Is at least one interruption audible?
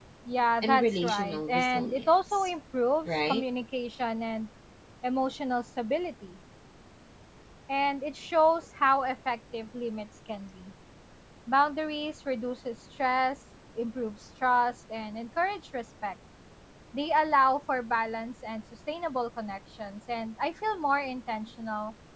Yes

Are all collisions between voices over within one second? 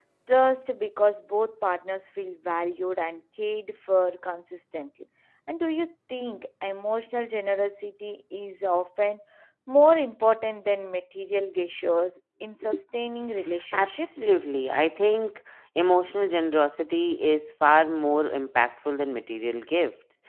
Yes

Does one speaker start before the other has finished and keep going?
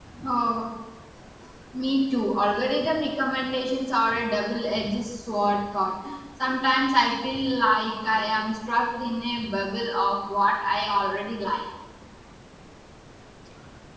No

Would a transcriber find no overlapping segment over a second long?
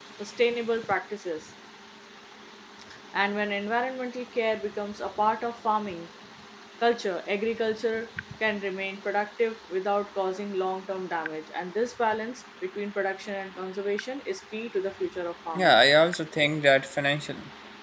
Yes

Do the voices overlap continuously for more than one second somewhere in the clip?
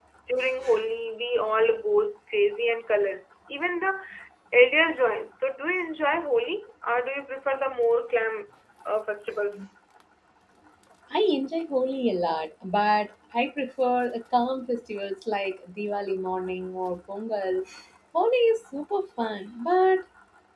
No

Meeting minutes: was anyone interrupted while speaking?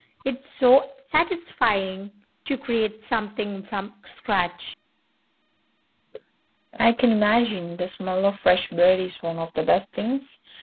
No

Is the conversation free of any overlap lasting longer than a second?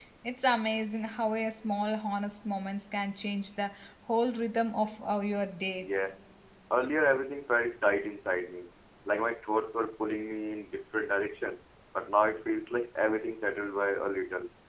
Yes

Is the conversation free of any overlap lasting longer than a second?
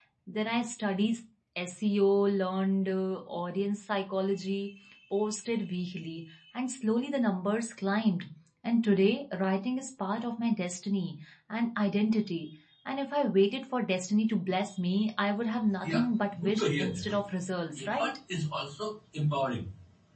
No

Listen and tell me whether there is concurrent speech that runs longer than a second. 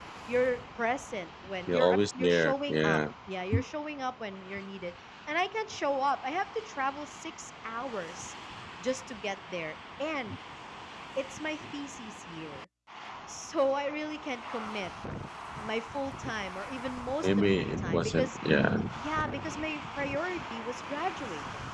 Yes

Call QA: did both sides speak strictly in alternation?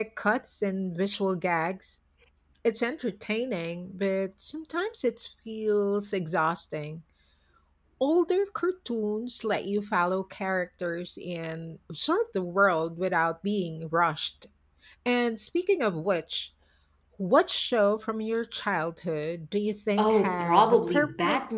No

